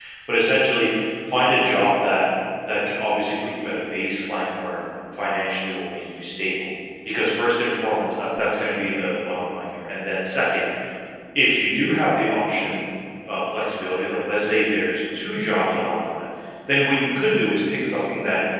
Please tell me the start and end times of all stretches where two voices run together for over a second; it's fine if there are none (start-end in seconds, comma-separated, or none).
none